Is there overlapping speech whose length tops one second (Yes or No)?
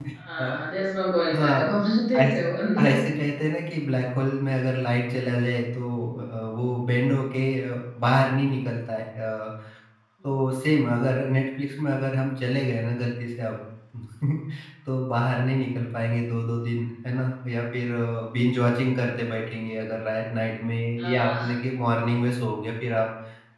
No